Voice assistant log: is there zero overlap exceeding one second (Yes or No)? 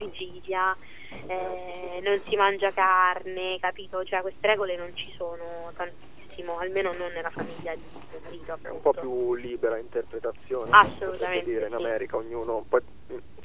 No